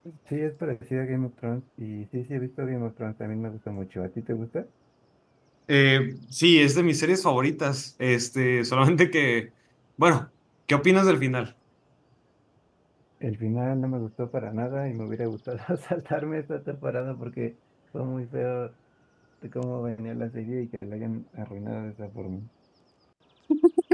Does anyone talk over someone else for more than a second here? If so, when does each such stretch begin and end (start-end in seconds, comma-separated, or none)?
none